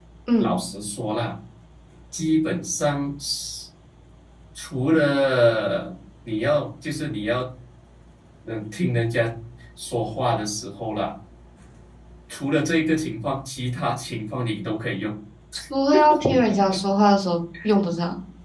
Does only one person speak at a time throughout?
Yes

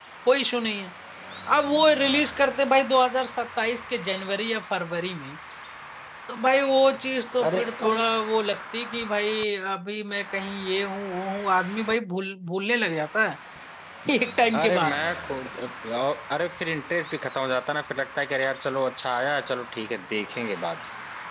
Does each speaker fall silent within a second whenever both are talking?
Yes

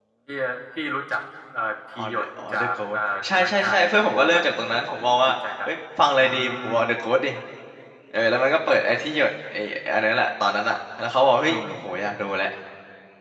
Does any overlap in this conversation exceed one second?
Yes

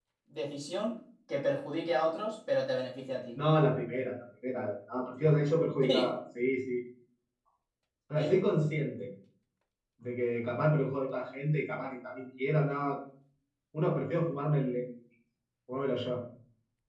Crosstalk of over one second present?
No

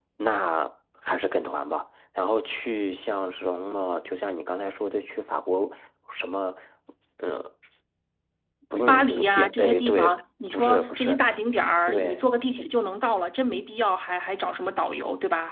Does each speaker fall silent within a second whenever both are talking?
No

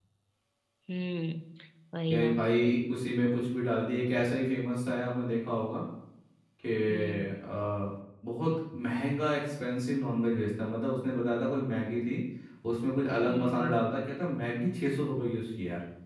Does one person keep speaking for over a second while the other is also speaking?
No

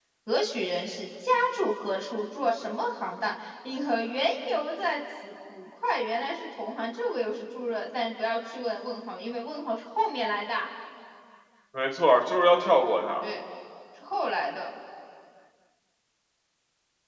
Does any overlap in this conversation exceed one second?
No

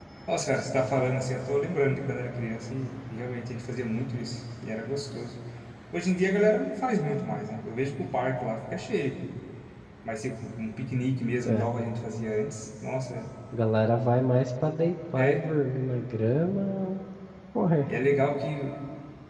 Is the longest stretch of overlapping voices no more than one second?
Yes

